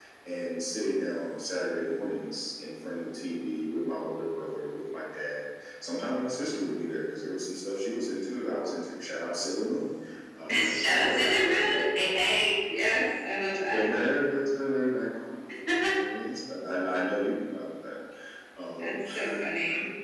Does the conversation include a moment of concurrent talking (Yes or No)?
Yes